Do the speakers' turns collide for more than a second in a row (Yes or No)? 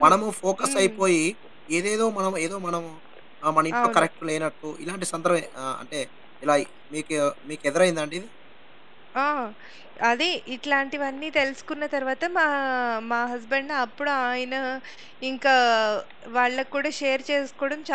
No